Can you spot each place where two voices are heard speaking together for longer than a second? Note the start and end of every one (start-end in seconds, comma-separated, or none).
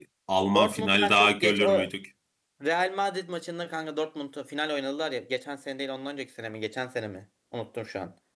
0.5-1.9